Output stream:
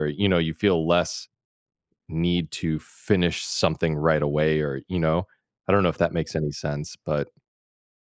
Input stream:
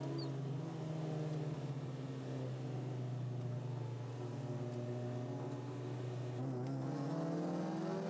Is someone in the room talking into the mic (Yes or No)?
No